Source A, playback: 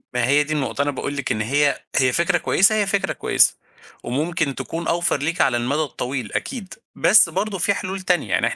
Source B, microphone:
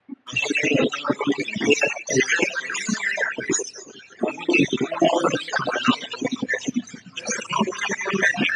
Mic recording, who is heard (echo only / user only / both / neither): echo only